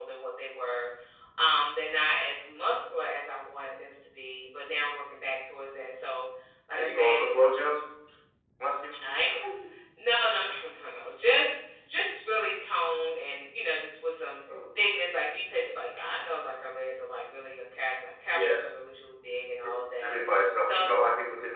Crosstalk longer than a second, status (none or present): none